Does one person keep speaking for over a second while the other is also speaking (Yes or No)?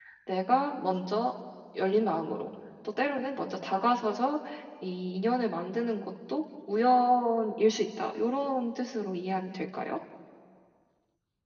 No